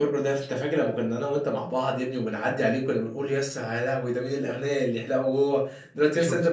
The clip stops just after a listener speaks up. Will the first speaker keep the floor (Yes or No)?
Yes